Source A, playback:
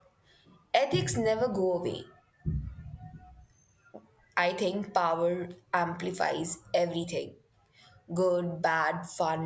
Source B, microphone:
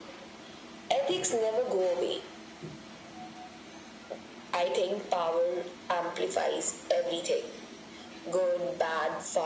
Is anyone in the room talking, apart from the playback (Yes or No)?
No